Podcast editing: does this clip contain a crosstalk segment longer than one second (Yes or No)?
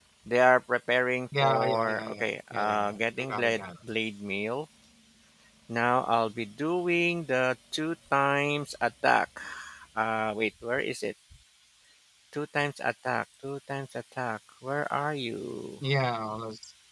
Yes